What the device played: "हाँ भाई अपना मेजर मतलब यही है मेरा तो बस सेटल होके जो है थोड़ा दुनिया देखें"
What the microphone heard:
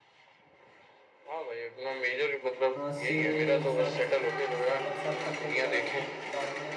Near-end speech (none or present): present